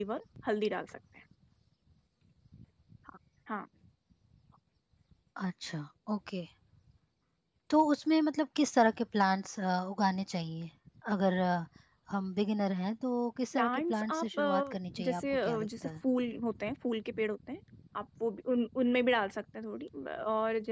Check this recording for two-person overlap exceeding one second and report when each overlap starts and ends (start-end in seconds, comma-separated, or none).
13.5-15.9